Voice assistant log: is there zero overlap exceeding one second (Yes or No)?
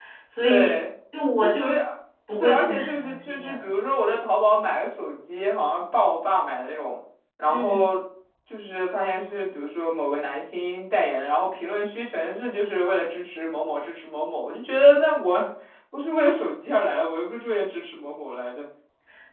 No